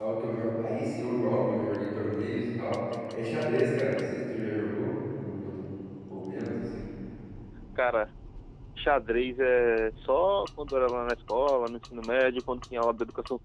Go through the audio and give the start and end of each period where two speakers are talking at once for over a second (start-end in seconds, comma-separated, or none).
none